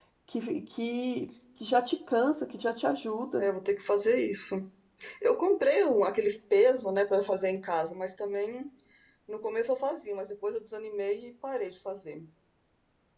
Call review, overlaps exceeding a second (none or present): none